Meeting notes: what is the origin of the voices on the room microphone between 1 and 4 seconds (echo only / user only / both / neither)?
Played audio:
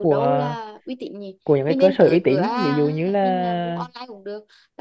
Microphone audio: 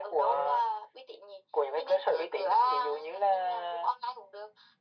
echo only